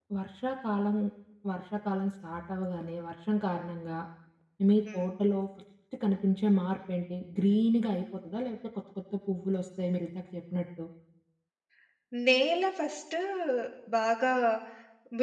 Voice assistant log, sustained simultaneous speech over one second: none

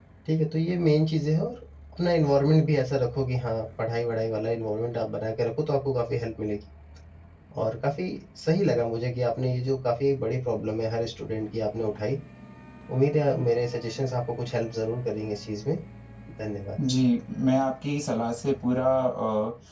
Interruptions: none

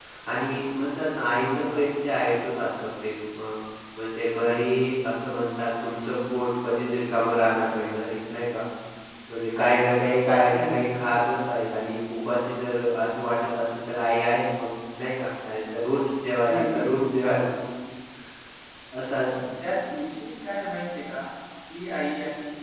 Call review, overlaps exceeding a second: none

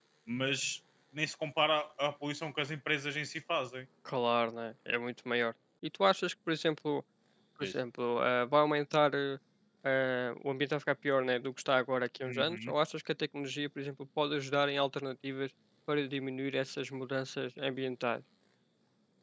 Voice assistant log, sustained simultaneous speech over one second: none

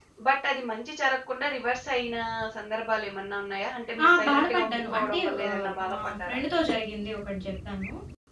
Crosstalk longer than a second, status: present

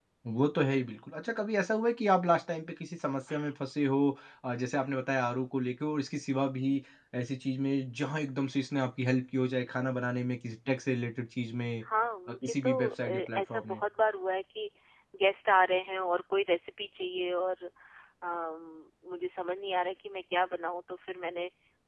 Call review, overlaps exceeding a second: present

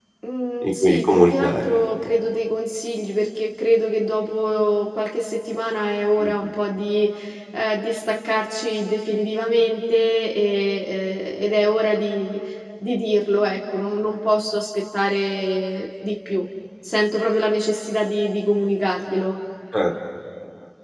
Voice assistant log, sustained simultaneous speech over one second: present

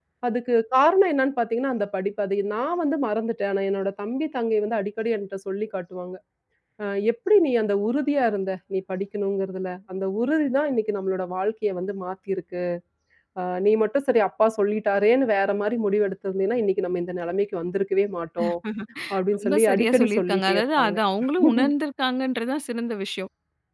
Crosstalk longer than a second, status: present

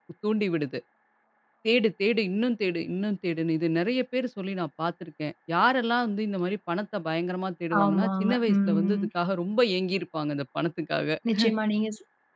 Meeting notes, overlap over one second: present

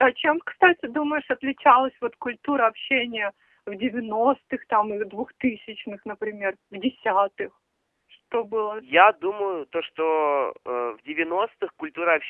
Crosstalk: none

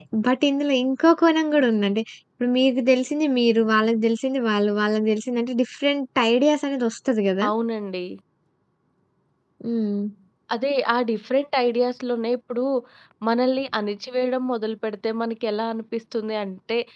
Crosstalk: none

